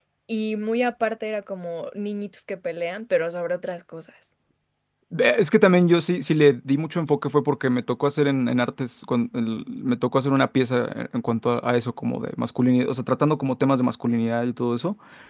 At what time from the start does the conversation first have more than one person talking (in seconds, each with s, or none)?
none